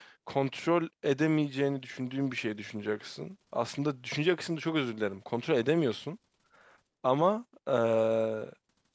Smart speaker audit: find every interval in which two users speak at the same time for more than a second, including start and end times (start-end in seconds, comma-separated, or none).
none